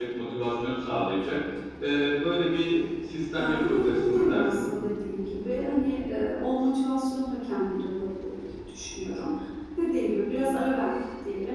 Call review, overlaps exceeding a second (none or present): present